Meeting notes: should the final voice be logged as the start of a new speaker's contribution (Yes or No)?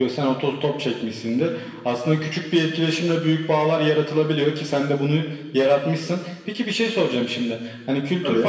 No